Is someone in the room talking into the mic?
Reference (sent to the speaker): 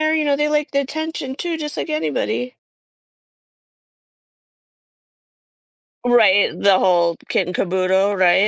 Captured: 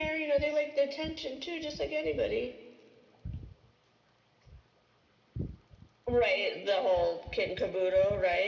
No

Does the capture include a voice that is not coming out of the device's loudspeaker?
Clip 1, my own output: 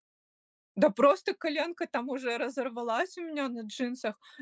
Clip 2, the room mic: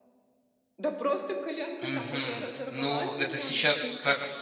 Yes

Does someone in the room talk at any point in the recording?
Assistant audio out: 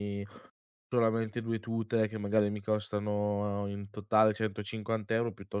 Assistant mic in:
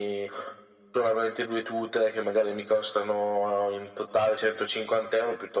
No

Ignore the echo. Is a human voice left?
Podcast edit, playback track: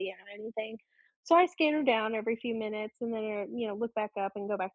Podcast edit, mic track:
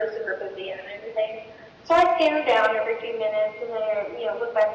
No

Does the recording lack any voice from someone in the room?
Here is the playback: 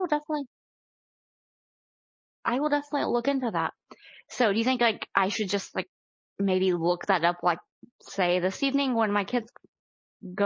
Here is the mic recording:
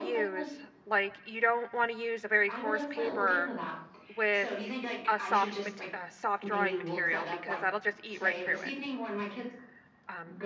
No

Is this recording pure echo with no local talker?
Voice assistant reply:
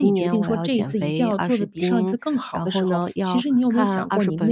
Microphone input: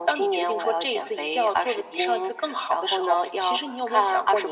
Yes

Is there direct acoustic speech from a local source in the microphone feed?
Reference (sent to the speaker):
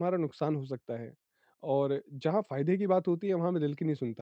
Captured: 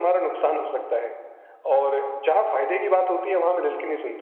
No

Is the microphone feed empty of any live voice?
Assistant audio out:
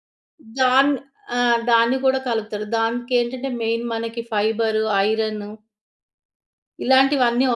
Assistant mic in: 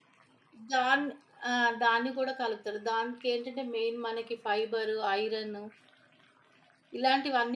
Yes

